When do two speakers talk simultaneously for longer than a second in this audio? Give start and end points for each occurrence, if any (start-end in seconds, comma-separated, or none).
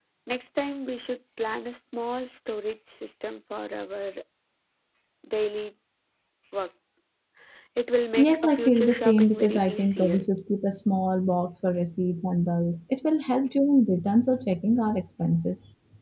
8.2-10.3